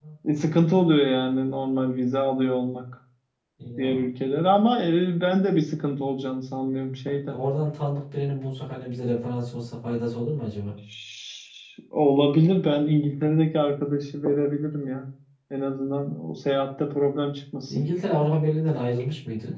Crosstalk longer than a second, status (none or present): none